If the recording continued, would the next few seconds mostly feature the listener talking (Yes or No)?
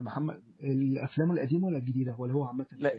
Yes